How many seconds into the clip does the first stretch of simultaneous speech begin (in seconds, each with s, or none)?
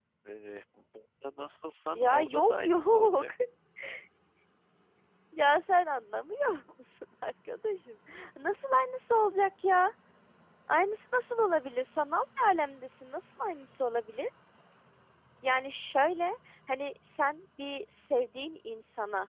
1.9 s